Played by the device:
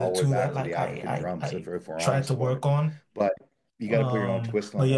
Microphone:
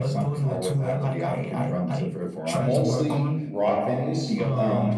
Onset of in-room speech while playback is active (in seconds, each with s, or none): 2.5 s